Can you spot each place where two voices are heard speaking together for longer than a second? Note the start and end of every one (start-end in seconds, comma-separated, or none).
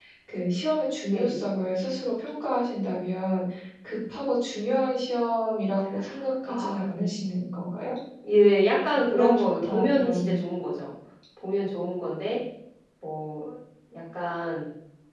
9.1-10.3